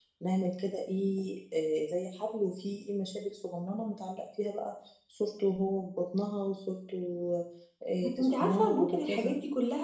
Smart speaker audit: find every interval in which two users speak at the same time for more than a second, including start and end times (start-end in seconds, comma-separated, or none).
8.0-9.3